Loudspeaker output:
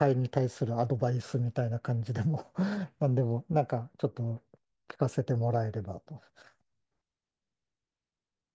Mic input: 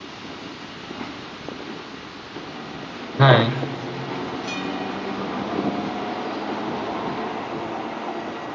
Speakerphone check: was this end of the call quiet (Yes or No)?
No